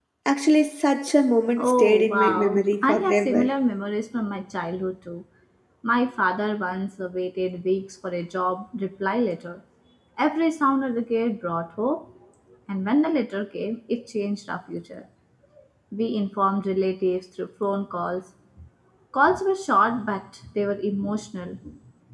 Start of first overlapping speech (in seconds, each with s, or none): 1.6 s